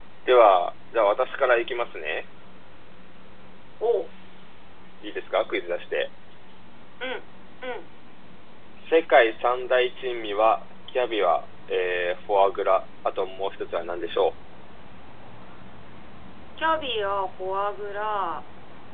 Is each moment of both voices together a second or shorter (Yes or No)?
Yes